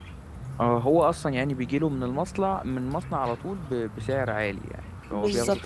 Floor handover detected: Yes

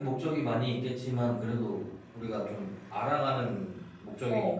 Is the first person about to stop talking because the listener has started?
Yes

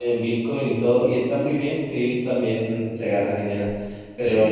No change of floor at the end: Yes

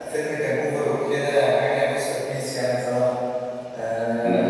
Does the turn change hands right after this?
Yes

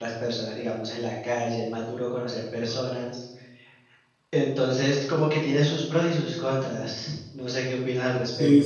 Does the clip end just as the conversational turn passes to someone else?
Yes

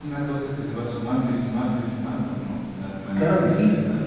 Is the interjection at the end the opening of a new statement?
Yes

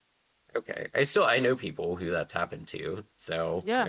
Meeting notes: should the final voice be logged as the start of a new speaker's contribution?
Yes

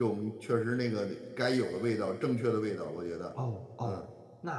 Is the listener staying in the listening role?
No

